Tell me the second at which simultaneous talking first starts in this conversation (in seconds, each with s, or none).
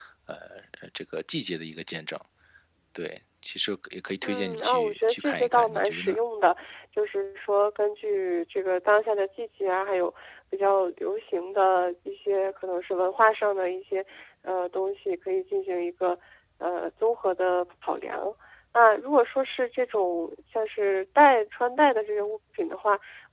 4.2 s